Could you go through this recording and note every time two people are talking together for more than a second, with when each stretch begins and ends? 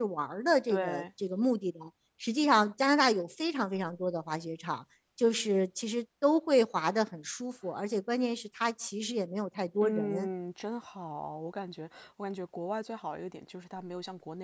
none

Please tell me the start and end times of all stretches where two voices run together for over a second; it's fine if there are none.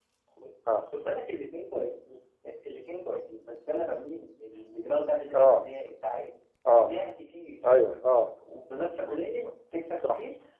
none

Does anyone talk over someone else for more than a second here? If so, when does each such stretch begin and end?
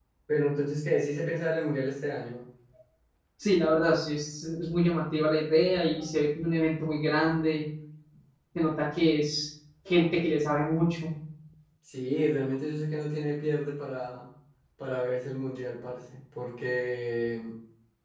none

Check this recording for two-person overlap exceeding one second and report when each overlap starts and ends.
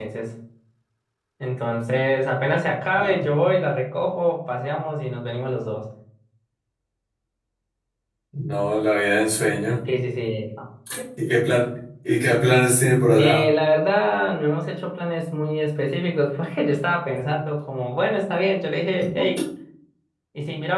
none

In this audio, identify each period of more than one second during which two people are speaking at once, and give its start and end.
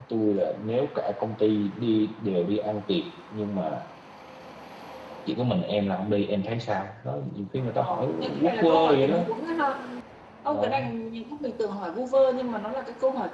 7.8-9.2

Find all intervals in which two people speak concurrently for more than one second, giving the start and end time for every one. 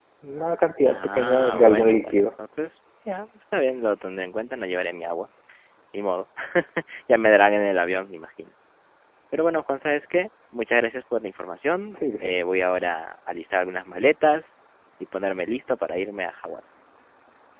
0.9-2.2

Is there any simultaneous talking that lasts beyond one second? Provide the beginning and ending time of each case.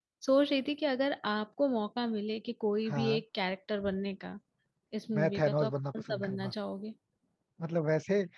5.2-6.5

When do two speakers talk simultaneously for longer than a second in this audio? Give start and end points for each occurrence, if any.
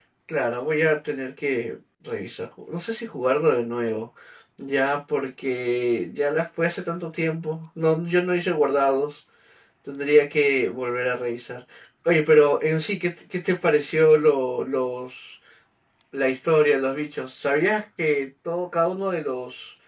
none

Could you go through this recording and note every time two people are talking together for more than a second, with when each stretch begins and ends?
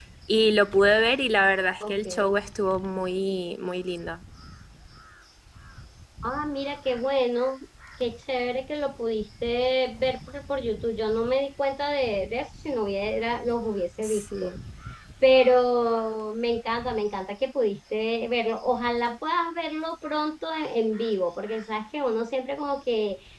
none

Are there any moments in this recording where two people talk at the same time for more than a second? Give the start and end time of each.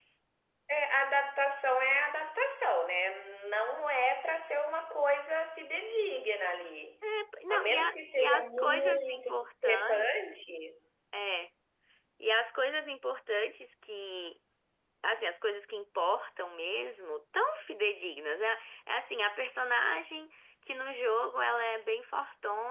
7.5-10.1

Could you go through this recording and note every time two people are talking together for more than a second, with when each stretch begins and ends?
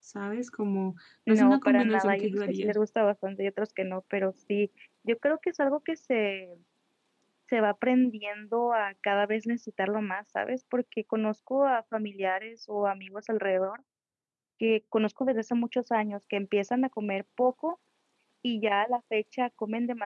1.3-2.7

